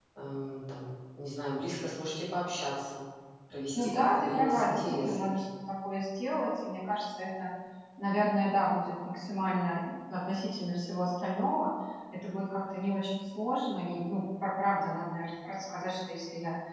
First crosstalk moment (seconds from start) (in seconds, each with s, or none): 3.8 s